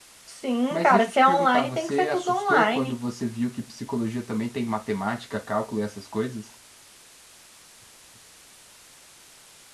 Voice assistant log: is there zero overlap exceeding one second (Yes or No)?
No